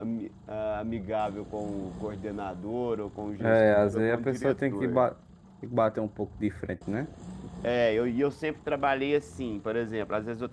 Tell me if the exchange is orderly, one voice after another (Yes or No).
No